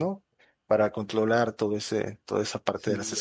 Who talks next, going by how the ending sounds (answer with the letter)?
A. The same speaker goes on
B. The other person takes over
B